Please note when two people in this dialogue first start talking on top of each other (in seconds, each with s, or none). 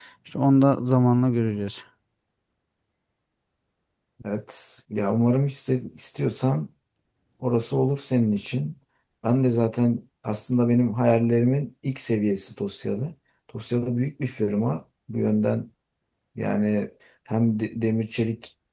none